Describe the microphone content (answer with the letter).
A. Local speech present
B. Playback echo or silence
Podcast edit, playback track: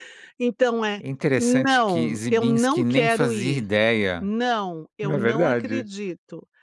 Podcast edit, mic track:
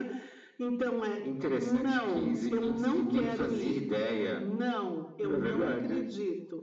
B